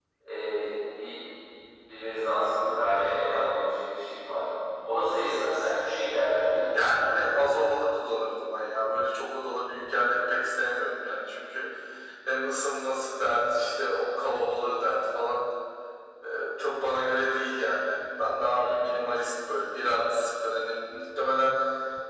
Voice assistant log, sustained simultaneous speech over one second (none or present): none